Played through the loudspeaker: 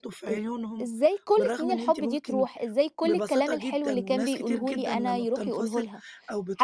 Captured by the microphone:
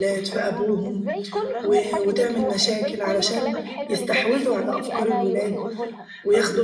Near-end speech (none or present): present